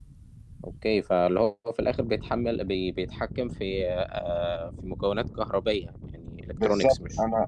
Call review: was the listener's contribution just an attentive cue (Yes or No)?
No